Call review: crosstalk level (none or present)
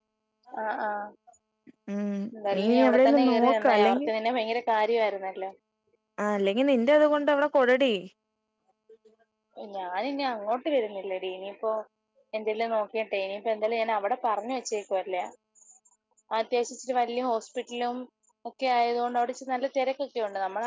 present